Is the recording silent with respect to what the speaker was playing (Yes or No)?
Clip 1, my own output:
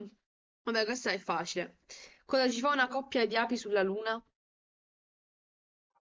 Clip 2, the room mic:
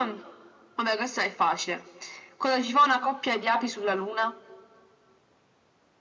No